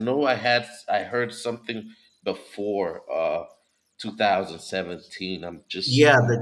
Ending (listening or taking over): taking over